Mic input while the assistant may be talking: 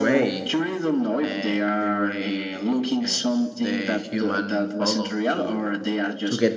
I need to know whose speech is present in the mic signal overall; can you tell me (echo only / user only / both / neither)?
both